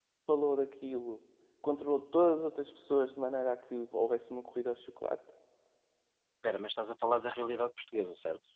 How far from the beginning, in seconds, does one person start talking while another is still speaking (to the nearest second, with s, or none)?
none